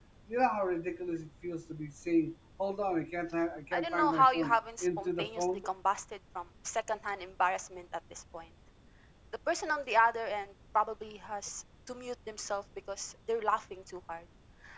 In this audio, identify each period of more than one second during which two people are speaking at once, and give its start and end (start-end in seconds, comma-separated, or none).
3.7-5.6